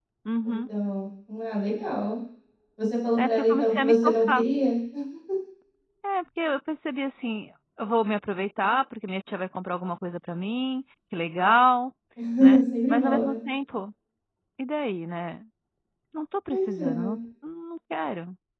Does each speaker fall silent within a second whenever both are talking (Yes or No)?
No